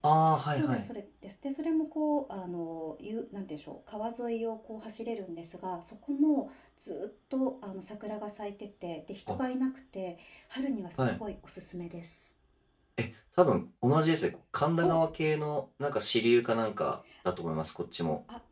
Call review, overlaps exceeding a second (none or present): none